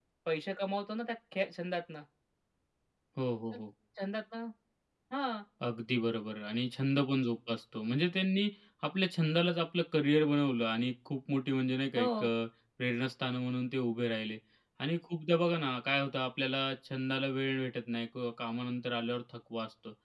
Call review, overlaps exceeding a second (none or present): none